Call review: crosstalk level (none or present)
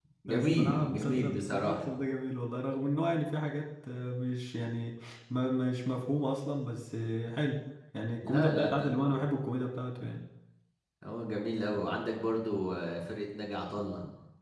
present